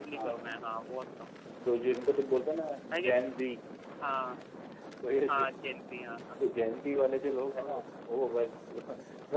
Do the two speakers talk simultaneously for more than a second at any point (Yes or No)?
No